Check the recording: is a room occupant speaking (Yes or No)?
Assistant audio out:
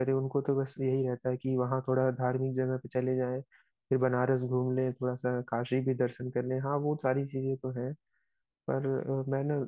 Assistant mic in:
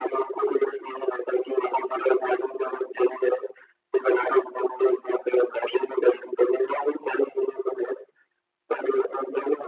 No